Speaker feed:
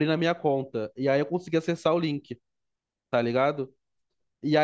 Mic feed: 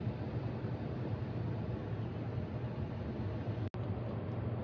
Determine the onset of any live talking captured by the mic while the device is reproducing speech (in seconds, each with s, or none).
none